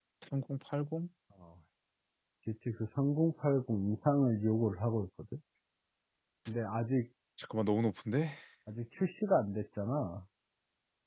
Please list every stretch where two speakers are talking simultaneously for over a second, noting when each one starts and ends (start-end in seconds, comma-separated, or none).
none